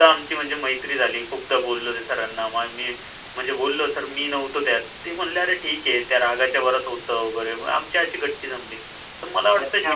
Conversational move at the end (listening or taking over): taking over